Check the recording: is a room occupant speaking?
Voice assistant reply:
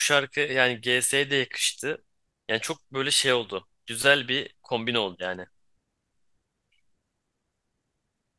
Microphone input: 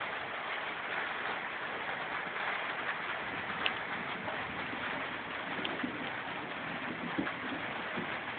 No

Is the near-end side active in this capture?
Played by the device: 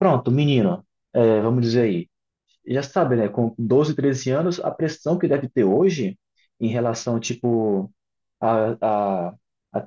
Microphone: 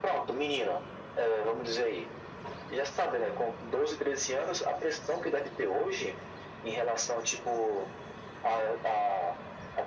No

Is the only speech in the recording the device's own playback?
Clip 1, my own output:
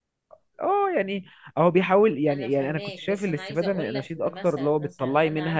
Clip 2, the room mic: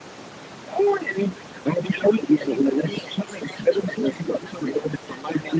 Yes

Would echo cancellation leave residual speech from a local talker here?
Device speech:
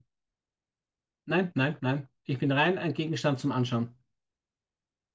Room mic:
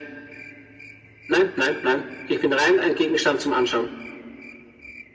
No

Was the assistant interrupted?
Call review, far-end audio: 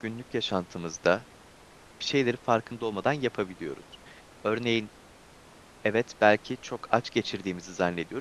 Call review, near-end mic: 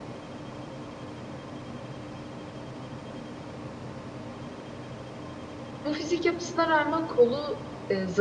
Yes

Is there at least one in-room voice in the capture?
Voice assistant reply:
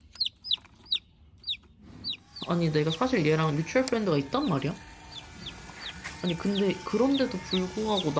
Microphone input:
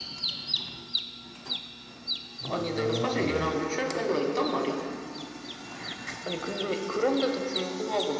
Yes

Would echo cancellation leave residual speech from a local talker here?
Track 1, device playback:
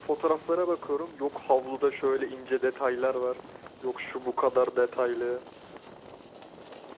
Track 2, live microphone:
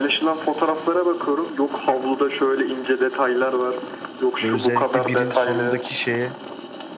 Yes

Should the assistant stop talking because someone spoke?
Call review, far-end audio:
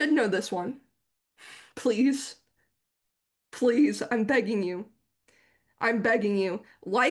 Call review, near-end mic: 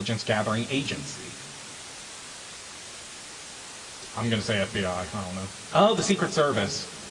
Yes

